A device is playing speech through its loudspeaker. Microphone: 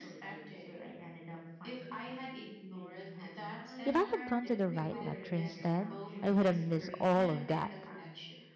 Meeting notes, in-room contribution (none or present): present